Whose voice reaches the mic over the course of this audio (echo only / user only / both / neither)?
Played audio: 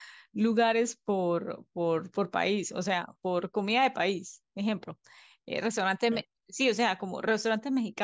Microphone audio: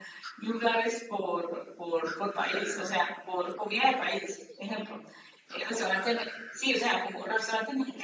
echo only